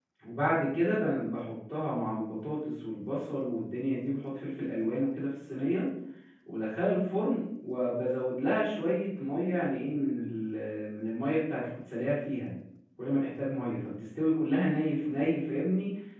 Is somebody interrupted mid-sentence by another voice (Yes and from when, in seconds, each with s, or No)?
No